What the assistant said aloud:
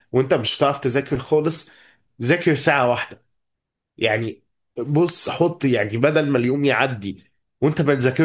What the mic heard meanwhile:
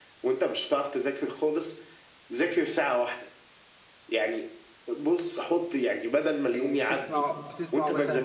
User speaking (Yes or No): Yes